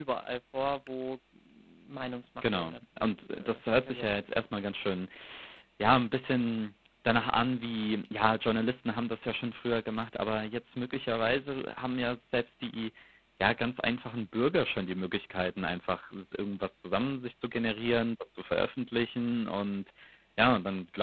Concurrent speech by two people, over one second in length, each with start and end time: 2.4-4.1

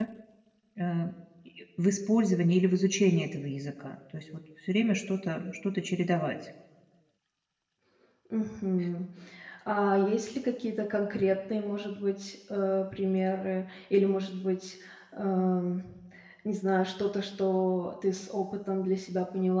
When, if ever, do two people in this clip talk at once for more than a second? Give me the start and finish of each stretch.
none

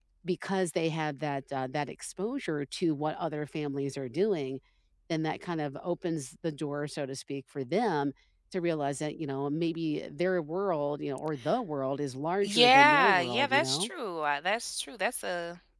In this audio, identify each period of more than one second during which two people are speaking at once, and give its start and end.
12.4-13.9

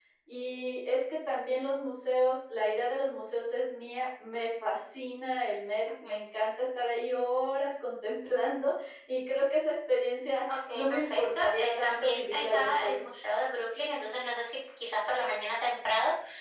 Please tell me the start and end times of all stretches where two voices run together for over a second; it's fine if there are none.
10.7-13.0

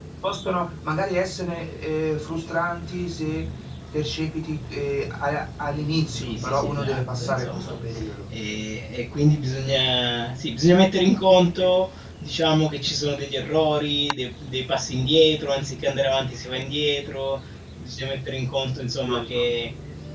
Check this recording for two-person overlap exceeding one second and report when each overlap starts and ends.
6.1-7.8

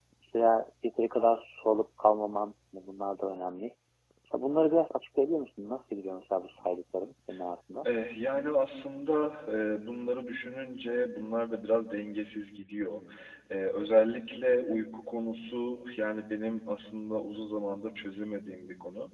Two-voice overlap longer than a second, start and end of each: none

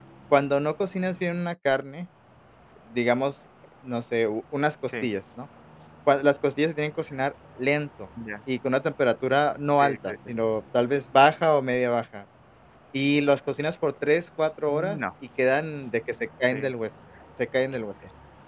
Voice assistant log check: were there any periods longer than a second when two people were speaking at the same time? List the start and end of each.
none

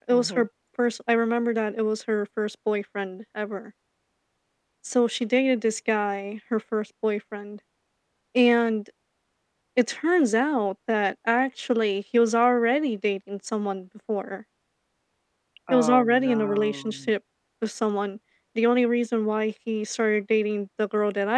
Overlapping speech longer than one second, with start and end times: 15.7-17.1

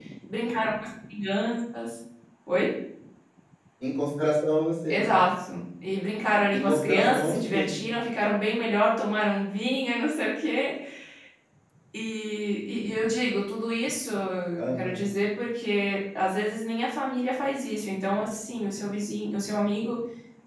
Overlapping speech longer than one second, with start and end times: 6.5-7.7

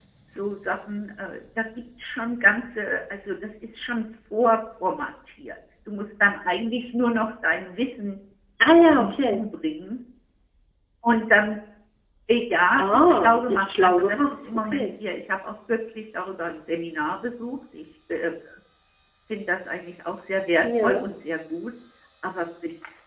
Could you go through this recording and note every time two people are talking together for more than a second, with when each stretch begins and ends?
12.8-14.9

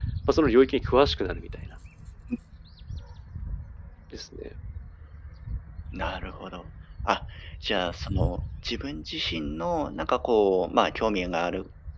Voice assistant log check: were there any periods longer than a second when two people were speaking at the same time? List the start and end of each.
none

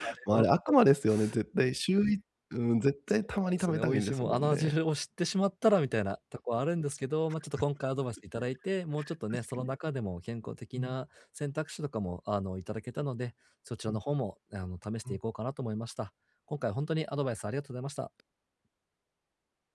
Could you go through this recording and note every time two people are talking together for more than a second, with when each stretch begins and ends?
3.5-4.7

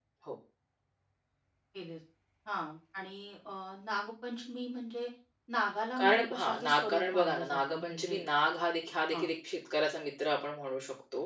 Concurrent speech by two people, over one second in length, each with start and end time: 6.0-8.2

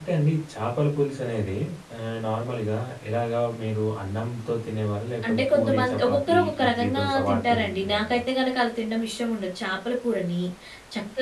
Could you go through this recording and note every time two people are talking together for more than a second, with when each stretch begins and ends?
5.3-8.2

